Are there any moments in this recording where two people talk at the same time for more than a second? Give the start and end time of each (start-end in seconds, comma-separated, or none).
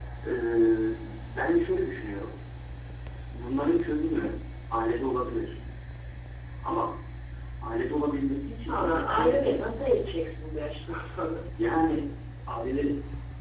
8.7-10.1